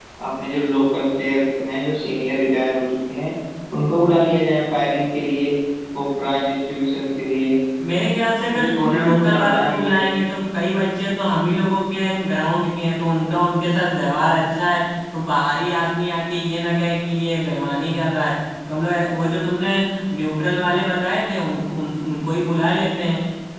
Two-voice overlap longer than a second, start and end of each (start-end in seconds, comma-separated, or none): 8.5-10.0